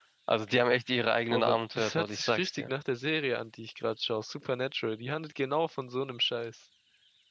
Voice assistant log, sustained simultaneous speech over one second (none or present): present